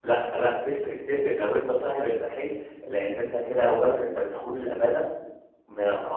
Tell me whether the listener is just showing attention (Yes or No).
Yes